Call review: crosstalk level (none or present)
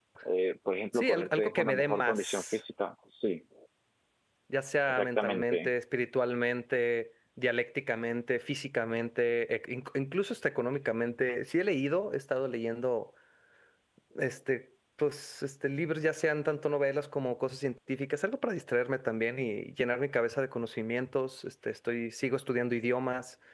present